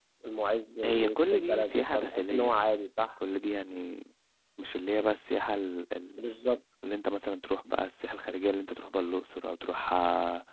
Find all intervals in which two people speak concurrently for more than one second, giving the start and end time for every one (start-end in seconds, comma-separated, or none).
0.8-2.6